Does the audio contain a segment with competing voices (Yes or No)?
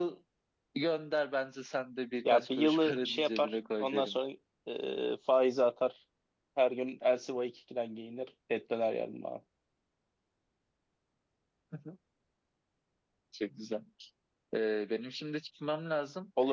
Yes